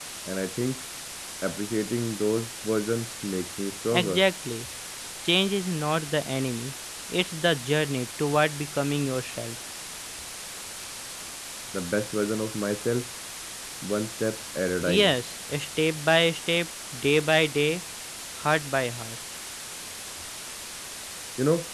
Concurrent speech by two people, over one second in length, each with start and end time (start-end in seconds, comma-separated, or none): none